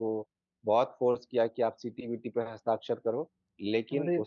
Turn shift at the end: No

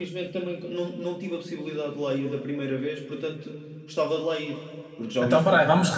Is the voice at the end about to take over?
Yes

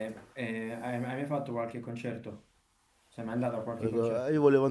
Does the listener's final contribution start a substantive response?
Yes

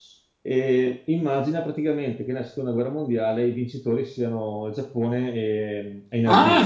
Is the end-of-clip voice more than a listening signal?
Yes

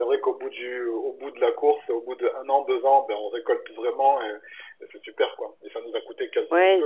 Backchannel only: No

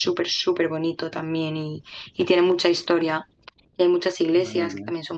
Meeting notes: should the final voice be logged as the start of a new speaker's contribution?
No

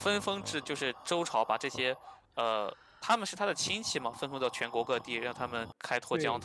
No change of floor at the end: No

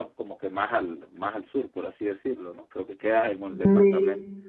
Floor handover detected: No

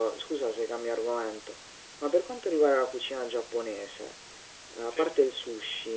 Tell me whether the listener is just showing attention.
Yes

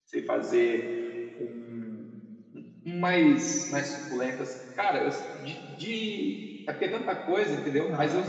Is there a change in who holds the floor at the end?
Yes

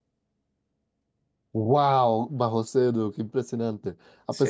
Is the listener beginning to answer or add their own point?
No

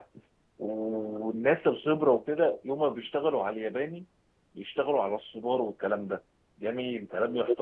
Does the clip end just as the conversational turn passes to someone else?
No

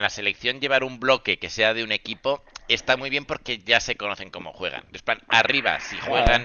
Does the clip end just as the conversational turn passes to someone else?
No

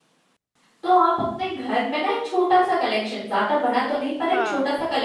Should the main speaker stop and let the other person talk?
No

